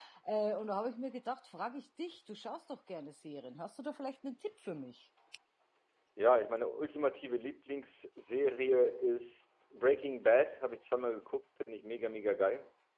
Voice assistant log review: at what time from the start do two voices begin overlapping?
none

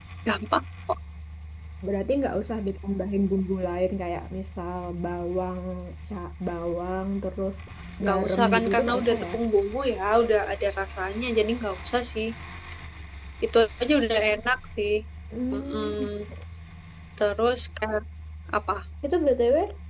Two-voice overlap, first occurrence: 8 s

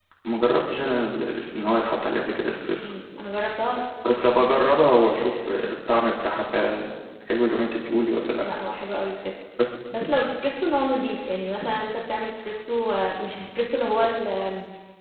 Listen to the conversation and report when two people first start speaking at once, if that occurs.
none

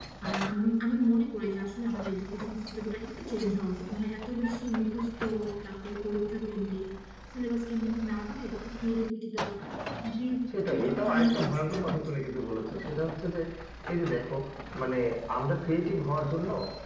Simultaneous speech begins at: 11 s

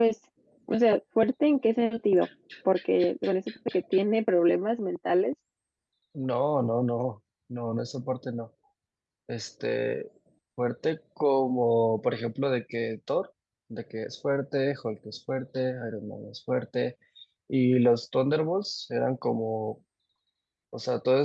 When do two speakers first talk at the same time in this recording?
none

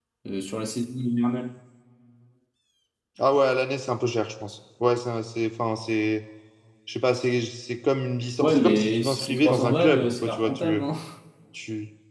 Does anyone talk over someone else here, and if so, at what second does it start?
8 s

